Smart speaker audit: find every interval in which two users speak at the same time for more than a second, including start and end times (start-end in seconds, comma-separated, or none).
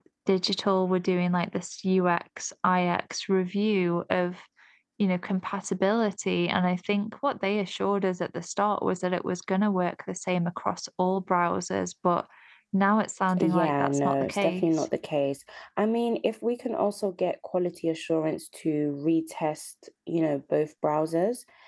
13.4-14.8